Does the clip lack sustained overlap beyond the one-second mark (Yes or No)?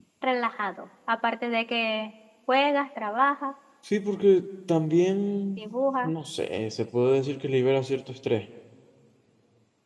Yes